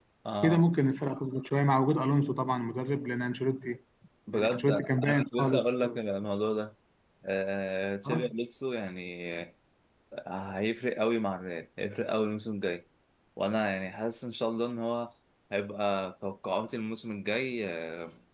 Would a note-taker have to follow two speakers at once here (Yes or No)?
Yes